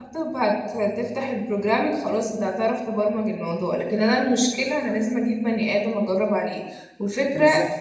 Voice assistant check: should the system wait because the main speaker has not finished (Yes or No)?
Yes